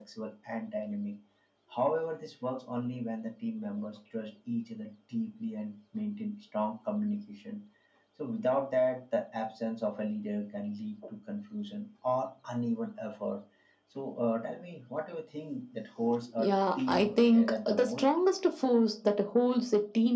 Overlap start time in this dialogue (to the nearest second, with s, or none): 16 s